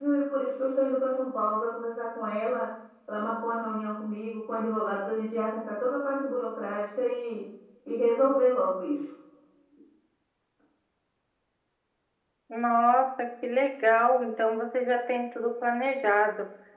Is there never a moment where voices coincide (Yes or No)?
Yes